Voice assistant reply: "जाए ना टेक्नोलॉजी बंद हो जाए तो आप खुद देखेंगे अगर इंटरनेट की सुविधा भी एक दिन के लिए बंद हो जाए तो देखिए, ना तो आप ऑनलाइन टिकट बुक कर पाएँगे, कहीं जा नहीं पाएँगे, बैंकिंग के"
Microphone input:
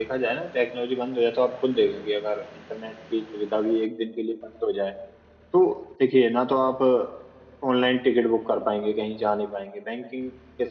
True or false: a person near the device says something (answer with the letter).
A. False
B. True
A